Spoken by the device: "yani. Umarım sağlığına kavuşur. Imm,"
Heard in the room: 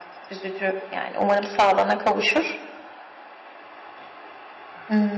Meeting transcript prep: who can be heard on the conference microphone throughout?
echo only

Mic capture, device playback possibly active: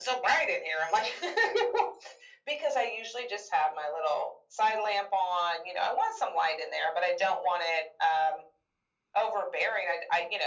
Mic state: echo only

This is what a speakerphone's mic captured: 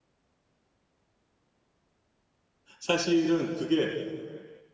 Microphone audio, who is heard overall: user only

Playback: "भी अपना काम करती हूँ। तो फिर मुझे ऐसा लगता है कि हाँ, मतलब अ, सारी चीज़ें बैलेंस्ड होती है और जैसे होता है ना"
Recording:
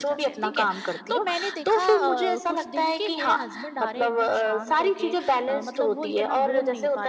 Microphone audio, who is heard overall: both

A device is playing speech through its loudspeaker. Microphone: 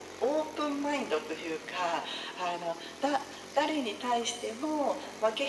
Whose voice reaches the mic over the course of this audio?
echo only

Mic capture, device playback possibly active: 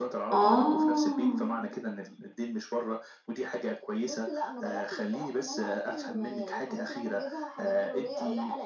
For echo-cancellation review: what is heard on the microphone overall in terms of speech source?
both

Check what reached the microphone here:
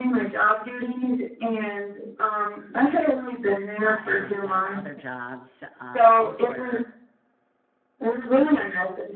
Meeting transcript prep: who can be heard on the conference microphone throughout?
both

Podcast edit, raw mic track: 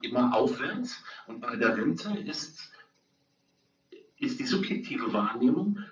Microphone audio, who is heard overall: echo only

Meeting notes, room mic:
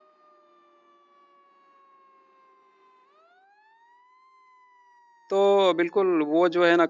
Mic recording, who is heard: user only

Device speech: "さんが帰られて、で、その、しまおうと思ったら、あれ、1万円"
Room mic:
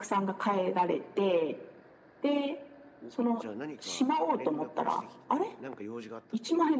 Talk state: both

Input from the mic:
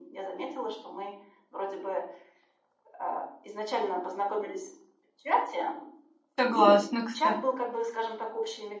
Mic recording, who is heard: both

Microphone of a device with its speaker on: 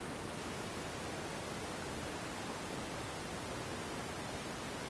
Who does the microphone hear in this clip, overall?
neither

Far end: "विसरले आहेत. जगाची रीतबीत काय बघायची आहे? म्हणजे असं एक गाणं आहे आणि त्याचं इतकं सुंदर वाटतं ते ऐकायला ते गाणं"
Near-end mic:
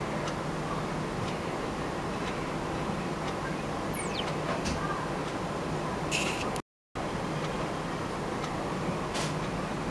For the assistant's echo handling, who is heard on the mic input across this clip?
neither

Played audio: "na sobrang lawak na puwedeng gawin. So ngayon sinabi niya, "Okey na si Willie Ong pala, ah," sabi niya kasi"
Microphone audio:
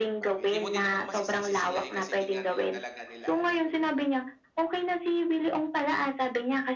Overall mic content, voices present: both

